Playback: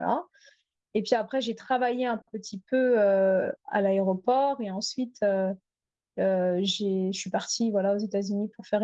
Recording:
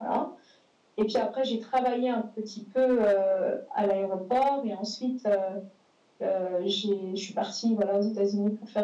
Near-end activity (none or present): none